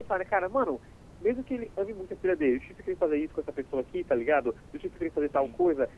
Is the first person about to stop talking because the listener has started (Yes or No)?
No